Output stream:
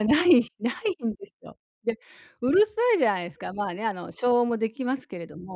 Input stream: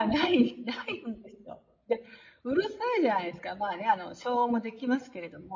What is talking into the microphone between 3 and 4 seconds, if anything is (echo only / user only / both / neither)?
echo only